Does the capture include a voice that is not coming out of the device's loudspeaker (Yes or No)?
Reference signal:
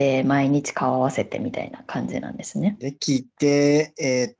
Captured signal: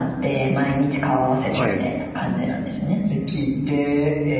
Yes